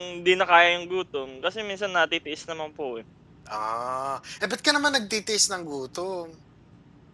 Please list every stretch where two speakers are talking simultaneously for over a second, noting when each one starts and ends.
none

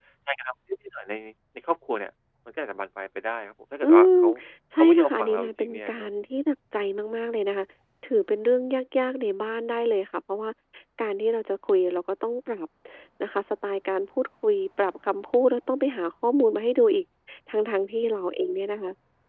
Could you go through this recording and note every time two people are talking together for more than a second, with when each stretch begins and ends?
4.8-6.1

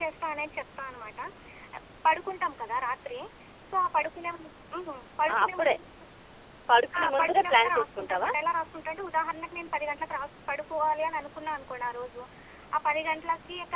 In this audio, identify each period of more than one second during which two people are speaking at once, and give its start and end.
7.0-8.3

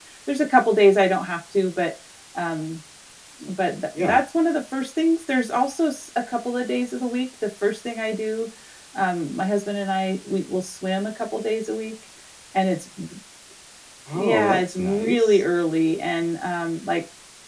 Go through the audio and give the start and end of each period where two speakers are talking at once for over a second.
14.2-15.4

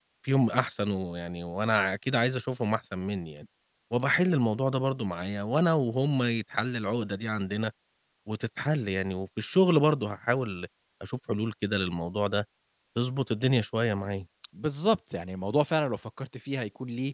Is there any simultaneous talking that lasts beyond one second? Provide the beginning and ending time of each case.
none

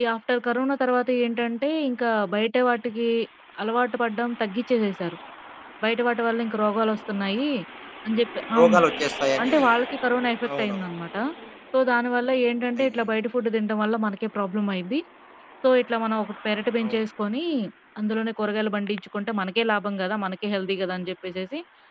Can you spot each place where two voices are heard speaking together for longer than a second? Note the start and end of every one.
none

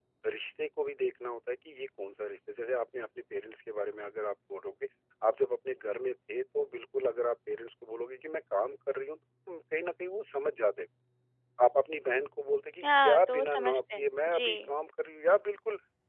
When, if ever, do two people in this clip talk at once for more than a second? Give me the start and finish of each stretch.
12.8-14.7

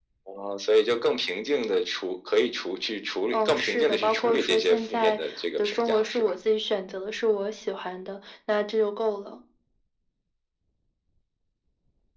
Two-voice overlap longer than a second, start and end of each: 3.3-6.3

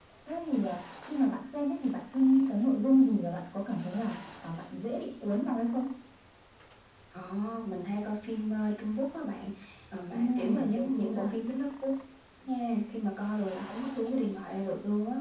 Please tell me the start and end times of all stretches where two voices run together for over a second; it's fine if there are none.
10.1-11.3

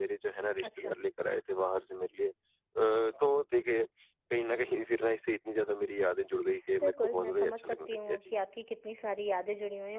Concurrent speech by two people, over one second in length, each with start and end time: 6.8-8.2

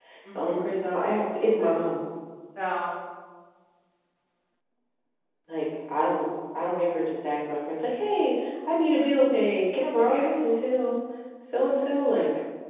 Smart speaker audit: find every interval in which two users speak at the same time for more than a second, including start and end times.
none

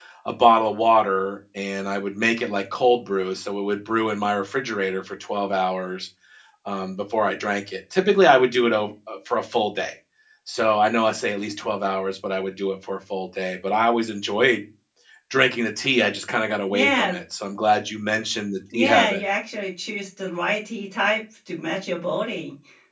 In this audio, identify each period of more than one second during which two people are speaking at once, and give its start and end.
none

